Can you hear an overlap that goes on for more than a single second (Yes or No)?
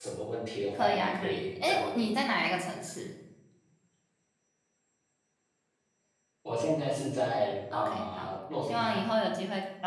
Yes